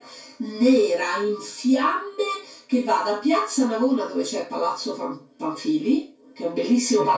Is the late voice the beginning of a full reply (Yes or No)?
No